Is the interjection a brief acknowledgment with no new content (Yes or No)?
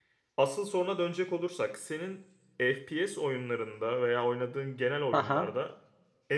Yes